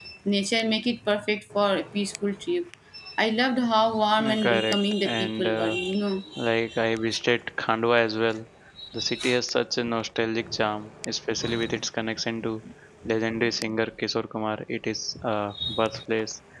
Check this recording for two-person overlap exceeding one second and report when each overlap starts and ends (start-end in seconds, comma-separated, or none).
4.2-5.8